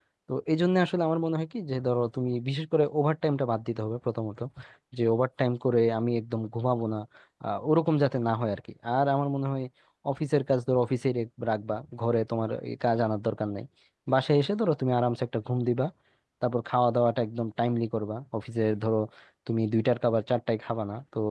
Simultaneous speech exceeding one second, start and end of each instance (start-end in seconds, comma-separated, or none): none